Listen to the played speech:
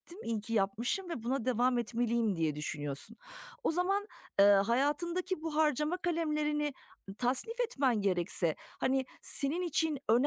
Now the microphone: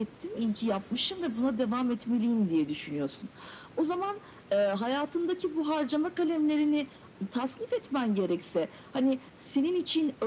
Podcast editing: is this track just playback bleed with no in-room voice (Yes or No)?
Yes